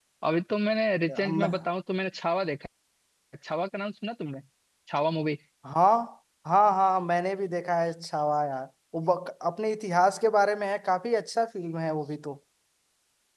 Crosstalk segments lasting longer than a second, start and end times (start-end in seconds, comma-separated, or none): none